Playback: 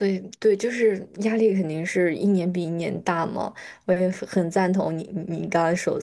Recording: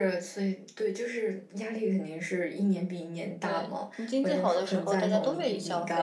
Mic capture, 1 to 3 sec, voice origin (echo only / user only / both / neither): echo only